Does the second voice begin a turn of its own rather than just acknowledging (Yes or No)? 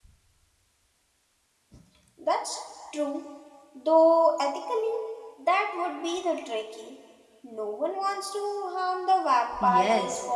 Yes